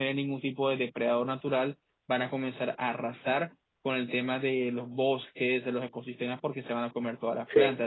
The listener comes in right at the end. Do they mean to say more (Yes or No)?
No